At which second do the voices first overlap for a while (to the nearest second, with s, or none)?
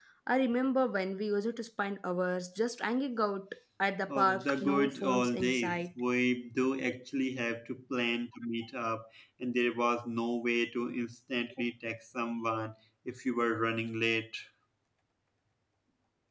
4 s